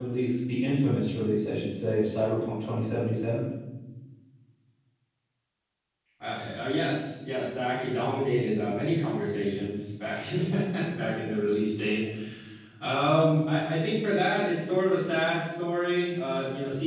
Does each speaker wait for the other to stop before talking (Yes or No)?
Yes